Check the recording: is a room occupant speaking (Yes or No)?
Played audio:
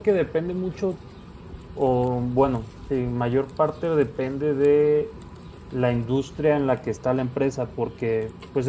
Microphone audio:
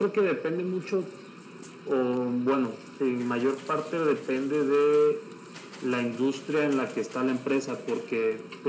No